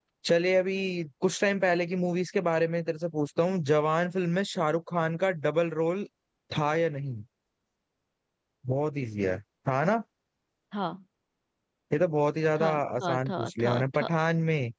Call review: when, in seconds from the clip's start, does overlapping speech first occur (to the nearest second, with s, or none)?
13 s